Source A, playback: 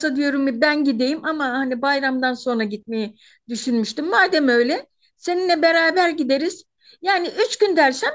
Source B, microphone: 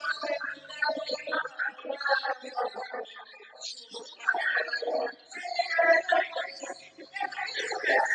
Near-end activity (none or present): none